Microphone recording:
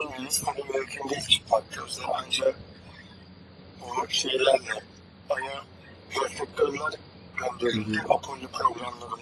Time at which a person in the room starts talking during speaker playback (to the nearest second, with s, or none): 8 s